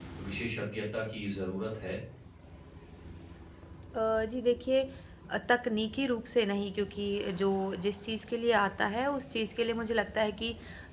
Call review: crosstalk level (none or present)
none